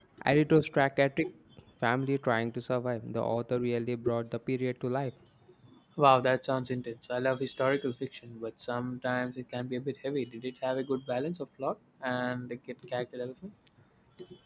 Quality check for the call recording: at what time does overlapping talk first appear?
none

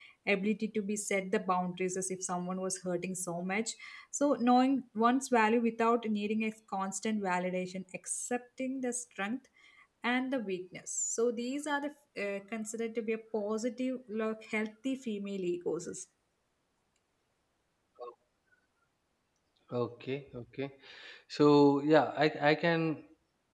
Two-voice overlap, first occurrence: none

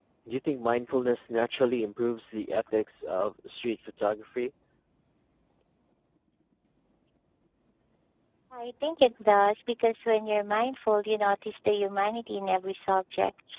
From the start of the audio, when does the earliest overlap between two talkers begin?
none

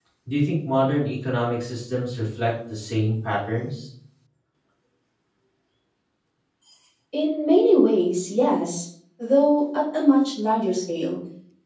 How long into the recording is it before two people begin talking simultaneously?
none

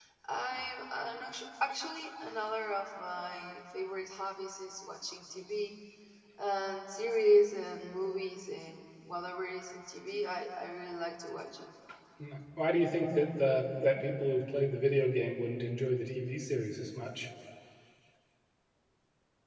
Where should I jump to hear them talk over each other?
none

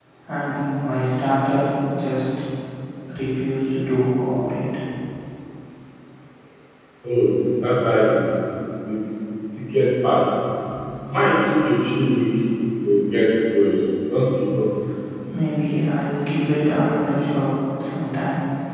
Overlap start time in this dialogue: none

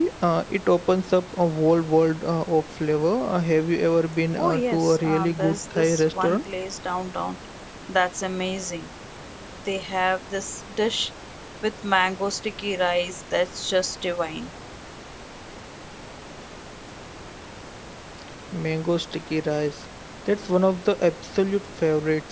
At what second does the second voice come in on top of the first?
4.4 s

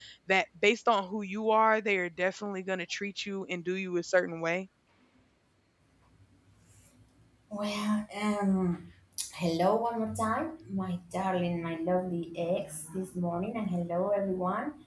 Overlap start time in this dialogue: none

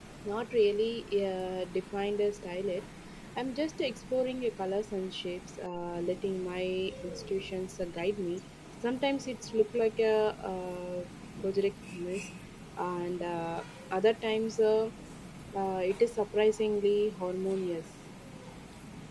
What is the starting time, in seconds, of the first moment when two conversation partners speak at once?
none

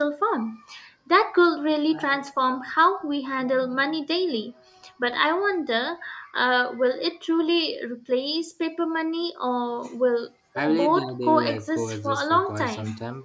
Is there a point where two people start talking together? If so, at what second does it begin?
10.6 s

